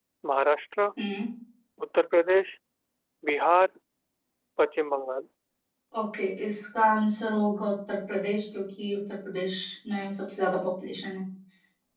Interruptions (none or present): none